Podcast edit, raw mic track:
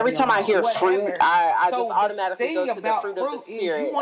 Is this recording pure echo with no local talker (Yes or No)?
No